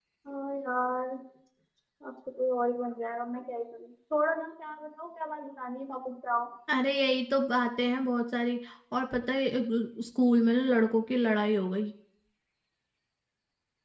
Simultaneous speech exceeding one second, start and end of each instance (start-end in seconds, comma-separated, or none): none